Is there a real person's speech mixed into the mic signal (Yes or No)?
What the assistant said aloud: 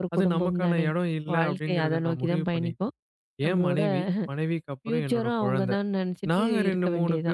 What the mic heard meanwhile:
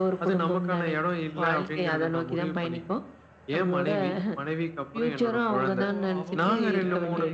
Yes